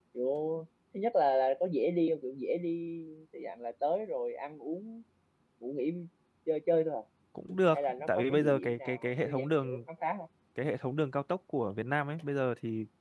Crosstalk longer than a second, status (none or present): present